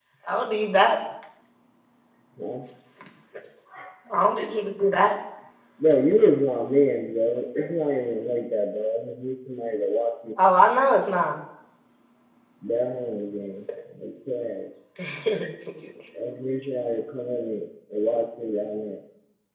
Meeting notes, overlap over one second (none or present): none